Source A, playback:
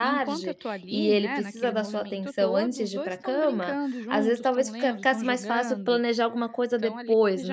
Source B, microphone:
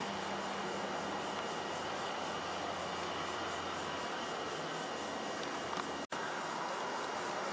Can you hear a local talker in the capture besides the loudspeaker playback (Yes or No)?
No